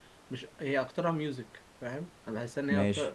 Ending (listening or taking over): listening